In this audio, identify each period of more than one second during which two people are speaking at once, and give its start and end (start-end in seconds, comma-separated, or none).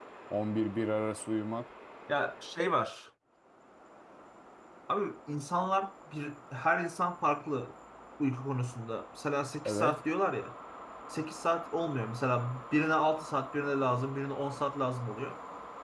none